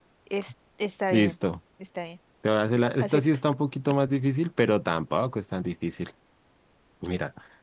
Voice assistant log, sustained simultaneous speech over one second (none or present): none